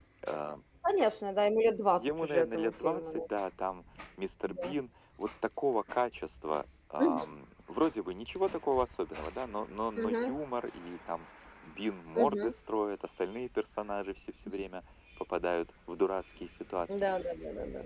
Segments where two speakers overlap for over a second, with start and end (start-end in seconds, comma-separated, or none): 2.0-3.2